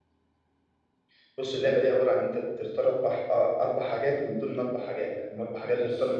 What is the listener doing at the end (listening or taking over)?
listening